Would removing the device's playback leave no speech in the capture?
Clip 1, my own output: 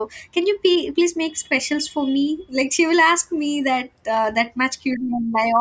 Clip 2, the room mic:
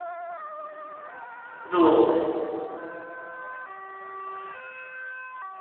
No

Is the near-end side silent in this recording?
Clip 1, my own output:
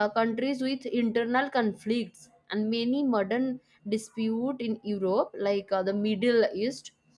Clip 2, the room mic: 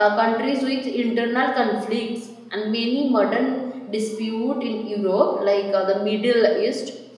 Yes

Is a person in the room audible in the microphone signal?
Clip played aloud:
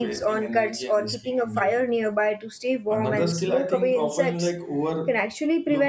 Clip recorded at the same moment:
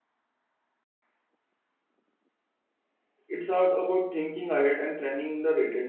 Yes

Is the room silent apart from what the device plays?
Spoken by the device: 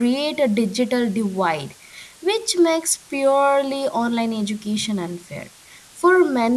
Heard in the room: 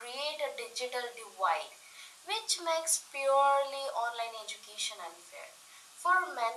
Yes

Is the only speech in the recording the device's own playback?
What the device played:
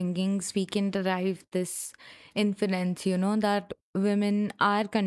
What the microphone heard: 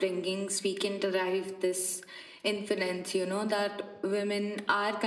Yes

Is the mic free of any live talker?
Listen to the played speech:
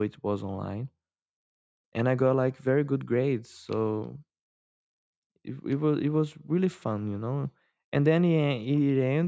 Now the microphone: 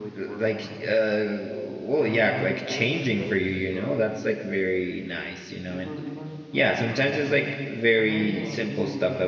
No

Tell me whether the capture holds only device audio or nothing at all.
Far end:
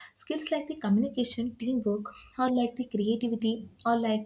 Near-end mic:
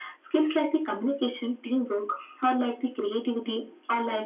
Yes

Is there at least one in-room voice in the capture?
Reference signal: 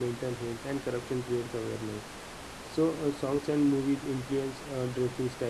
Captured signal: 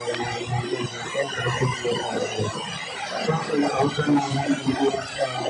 No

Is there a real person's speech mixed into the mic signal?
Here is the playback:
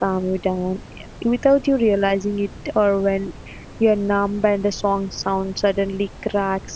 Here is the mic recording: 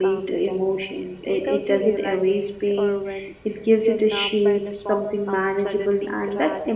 Yes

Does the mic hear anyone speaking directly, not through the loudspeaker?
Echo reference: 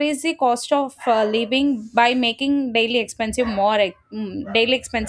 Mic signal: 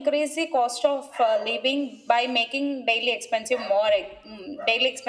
No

